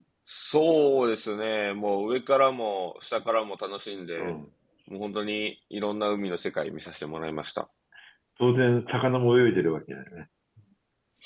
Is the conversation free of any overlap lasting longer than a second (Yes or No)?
Yes